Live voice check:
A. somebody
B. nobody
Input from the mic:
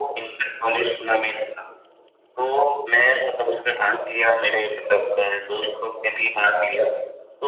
B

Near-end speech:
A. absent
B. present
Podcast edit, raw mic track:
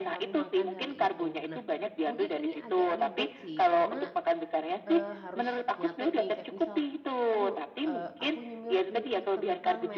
B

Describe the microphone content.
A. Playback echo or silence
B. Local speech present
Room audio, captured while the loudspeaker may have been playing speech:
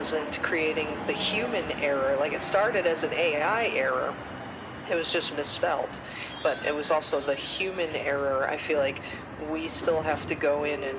A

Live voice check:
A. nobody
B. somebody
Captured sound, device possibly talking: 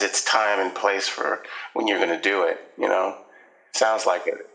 A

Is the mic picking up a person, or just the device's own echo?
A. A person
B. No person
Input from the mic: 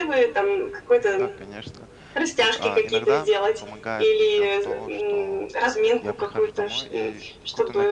A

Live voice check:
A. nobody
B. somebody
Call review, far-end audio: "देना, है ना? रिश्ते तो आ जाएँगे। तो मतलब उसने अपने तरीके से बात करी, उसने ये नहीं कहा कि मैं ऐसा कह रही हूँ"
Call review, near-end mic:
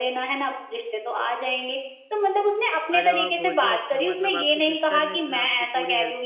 B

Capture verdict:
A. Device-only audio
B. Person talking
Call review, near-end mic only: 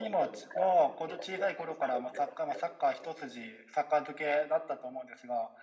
B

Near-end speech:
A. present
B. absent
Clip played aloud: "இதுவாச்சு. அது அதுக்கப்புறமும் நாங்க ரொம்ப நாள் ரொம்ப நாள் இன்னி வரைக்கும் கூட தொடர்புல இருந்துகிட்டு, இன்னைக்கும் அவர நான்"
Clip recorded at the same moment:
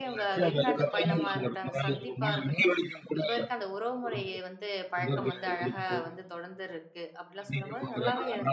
A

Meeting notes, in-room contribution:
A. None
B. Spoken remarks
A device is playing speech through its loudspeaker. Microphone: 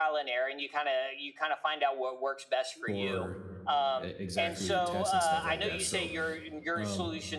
B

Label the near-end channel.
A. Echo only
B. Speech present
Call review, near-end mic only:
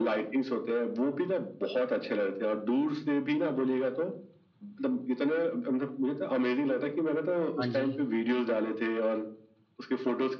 B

